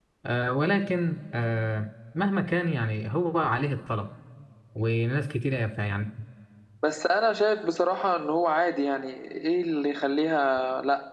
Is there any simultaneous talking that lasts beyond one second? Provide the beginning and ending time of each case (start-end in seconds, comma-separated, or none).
none